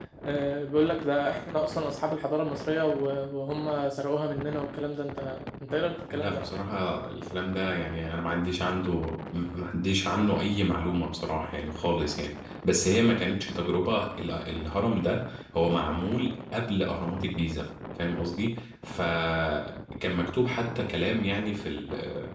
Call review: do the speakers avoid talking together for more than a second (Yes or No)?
Yes